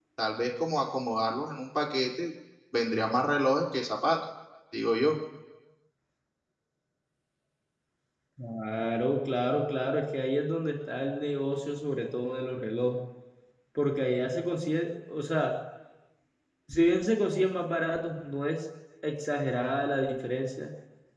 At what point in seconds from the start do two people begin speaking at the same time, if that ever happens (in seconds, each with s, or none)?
none